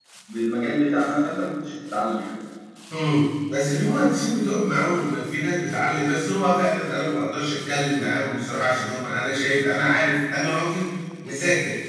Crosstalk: none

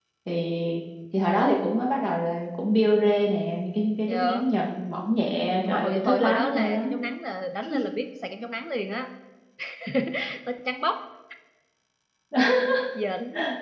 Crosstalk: present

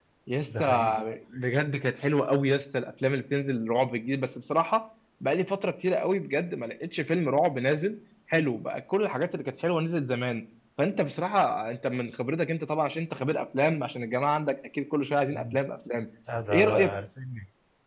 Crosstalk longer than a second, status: none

